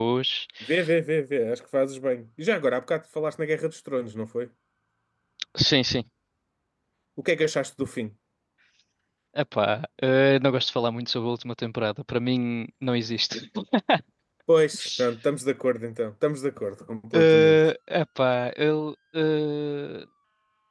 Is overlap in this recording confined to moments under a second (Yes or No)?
Yes